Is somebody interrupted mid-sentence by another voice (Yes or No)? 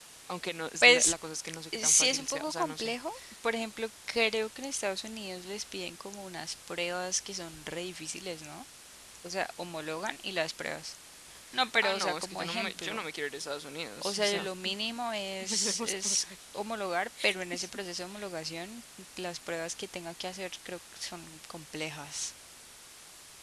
Yes